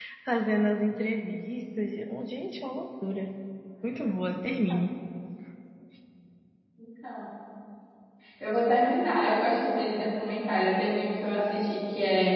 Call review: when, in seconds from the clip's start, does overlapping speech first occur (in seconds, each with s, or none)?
none